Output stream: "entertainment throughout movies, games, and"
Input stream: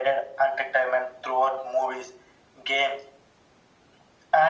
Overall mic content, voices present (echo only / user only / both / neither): echo only